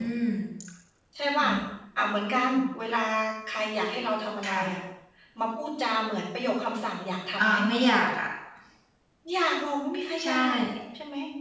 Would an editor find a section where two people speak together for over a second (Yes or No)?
No